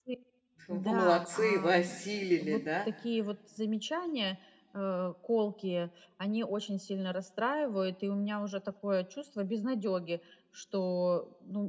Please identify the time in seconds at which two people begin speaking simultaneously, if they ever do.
0.7 s

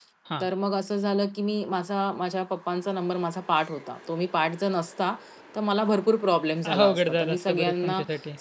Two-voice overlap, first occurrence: 6.6 s

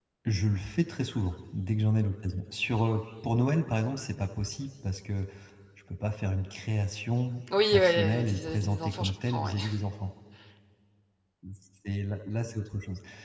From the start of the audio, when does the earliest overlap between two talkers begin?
7.5 s

